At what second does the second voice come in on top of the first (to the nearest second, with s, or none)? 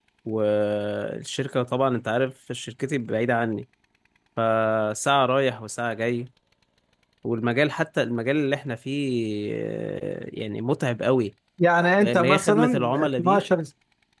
12 s